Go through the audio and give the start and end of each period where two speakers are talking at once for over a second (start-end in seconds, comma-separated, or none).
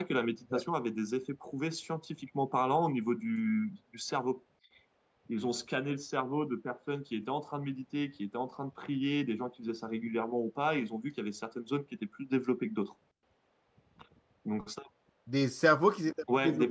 none